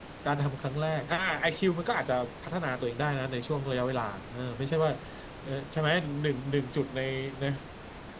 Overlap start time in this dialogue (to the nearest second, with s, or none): none